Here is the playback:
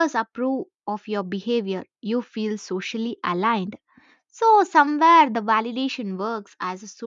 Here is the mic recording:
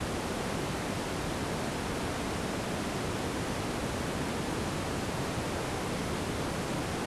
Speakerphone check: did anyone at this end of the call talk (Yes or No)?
No